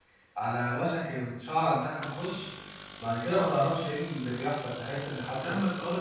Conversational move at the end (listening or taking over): taking over